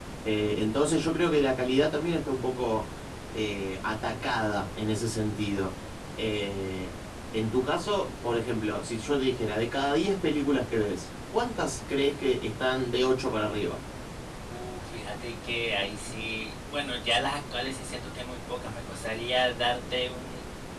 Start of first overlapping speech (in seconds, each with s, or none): none